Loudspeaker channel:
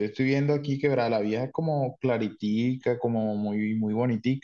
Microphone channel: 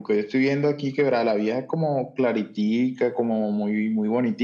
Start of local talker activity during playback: none

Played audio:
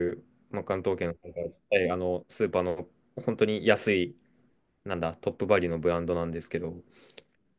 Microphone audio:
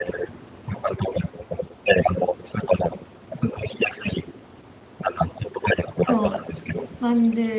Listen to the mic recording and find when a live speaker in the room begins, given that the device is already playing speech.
6.0 s

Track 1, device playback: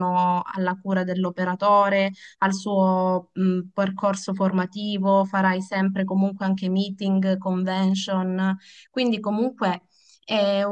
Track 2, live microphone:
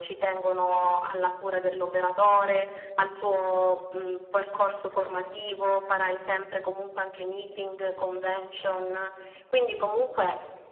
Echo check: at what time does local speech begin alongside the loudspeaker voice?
none

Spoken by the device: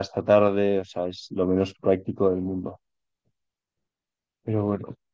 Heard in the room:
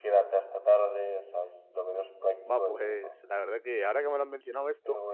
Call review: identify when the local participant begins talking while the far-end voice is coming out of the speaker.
2.5 s

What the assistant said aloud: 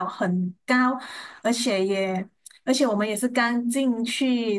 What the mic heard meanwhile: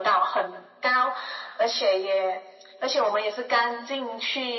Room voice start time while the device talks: none

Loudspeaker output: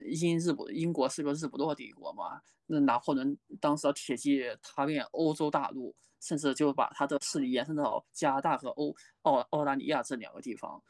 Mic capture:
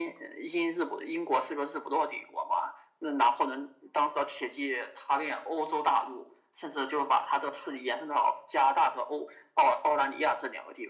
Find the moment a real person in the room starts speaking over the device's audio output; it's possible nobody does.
none

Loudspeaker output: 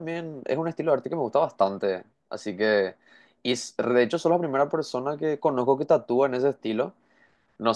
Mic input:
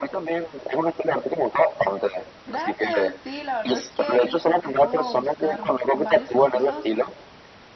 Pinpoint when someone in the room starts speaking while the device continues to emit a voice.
2.4 s

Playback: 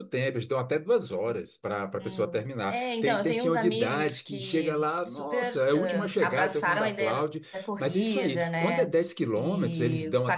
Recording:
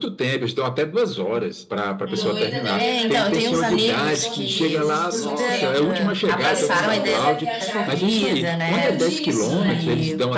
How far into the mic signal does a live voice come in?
2.1 s

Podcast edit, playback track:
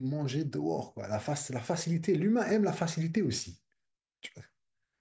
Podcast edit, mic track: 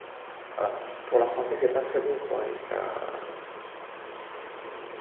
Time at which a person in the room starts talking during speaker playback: 0.6 s

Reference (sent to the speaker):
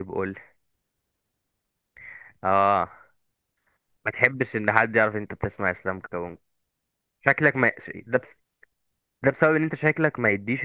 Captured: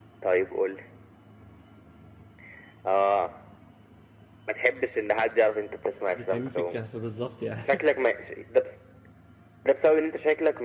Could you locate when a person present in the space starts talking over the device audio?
6.1 s

